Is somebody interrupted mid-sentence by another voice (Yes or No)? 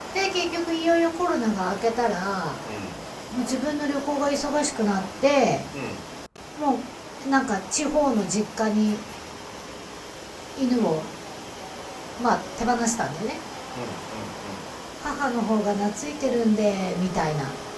No